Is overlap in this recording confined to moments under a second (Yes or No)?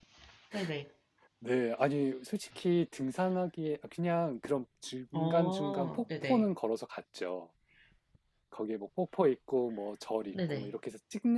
No